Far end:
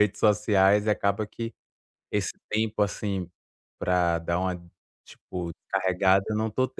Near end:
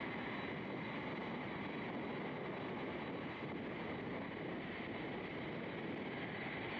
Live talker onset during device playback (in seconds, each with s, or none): none